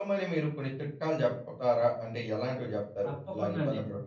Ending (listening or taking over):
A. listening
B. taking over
B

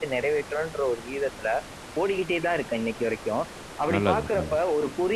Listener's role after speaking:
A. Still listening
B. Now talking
A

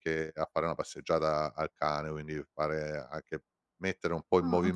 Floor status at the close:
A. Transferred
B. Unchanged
A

